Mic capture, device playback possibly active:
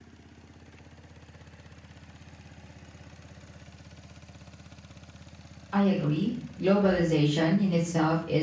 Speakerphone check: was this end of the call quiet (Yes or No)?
No